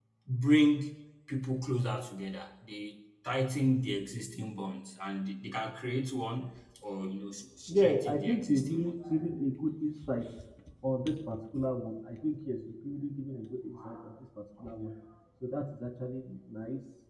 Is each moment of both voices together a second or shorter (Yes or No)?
No